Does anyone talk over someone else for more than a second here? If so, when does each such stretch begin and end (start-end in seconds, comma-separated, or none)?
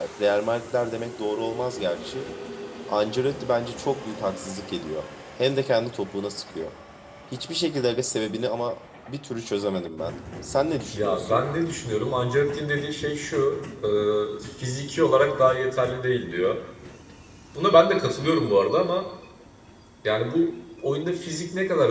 none